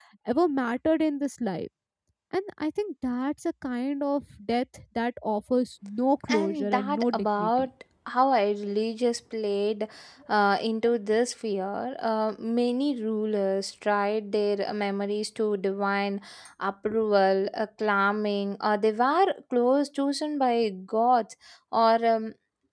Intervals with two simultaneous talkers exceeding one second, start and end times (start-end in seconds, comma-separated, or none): 6.3-7.7